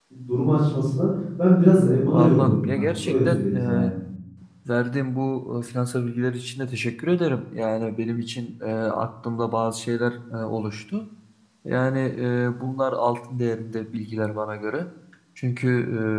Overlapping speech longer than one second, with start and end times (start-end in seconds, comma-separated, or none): 1.8-3.9